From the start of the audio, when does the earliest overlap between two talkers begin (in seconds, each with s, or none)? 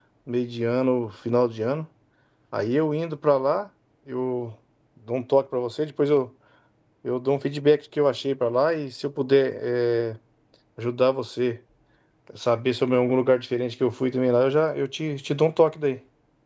none